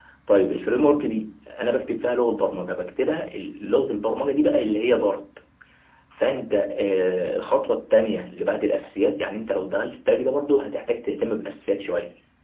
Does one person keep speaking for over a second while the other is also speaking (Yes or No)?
No